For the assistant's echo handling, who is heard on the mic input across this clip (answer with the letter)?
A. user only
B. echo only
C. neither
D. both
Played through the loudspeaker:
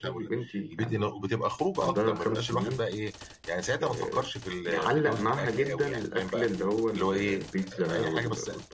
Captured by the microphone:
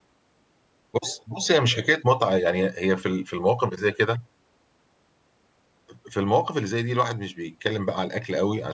A